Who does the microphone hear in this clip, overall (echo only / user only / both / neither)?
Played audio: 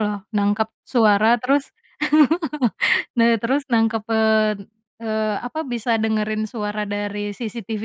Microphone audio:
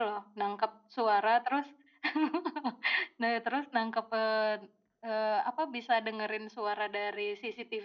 echo only